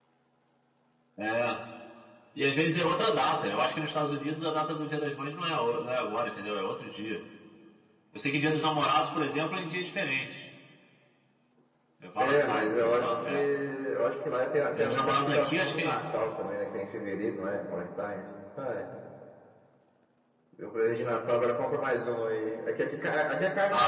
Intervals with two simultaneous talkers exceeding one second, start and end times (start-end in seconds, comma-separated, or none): 12.2-13.5, 14.7-16.0